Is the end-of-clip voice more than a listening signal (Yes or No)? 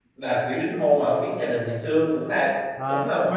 Yes